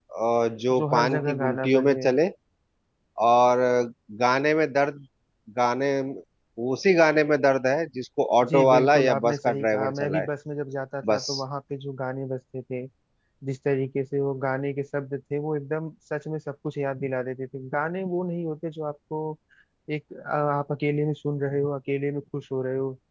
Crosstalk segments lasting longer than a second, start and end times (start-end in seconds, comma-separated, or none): 0.8-2.1, 8.5-10.3